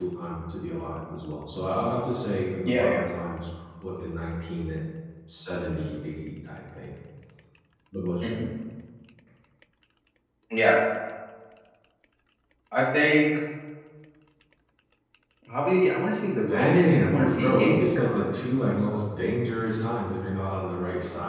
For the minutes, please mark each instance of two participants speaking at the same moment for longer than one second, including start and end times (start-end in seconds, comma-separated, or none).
16.5-19.0